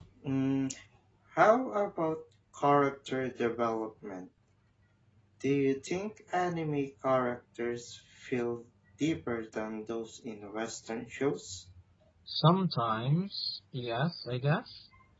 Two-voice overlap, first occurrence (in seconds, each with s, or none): none